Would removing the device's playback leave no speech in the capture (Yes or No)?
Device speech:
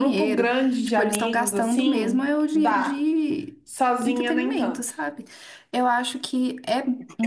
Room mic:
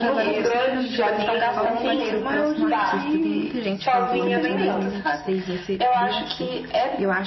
No